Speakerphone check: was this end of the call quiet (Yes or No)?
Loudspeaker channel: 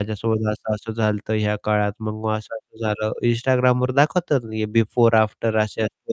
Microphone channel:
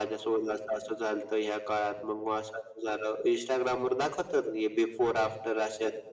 Yes